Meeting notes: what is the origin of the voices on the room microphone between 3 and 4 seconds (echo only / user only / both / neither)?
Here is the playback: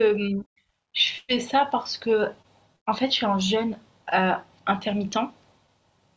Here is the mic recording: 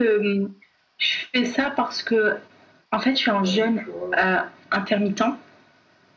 both